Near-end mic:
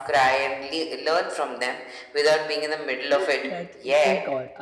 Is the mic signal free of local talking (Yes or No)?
No